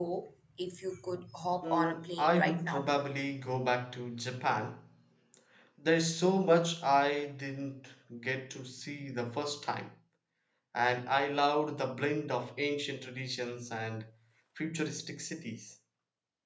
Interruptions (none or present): present